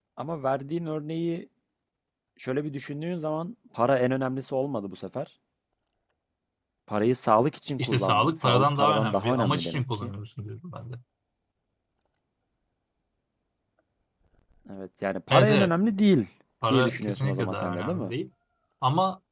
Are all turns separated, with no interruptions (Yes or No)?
No